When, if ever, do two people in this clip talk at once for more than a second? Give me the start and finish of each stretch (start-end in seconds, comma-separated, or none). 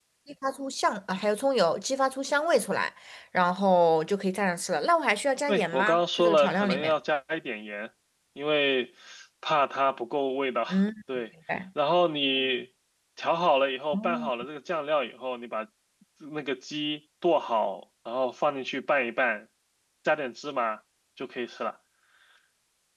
5.5-6.9